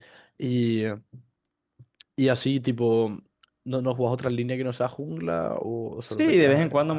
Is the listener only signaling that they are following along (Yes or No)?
No